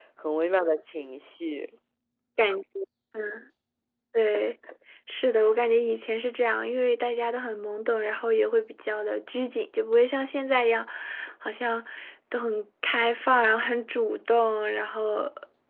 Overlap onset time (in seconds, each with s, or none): none